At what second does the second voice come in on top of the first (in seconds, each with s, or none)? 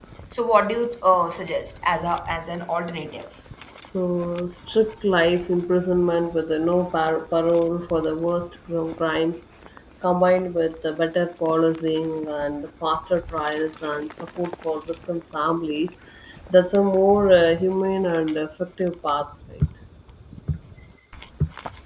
none